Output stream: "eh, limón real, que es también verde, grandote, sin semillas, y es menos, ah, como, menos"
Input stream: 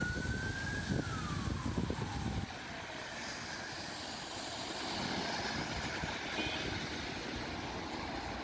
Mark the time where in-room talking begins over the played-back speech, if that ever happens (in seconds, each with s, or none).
none